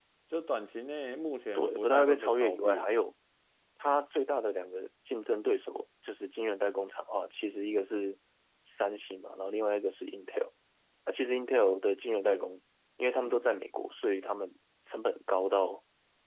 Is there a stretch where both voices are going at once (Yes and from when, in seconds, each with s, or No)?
Yes, from 1.6 s